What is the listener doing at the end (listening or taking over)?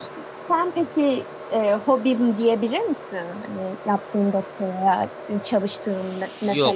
taking over